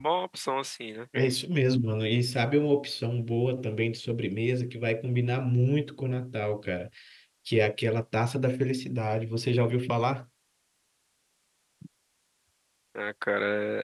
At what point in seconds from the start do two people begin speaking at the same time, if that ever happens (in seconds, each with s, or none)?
none